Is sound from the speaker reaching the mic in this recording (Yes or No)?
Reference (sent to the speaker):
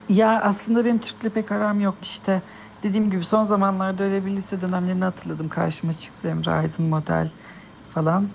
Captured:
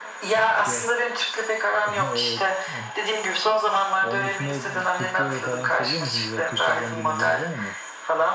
Yes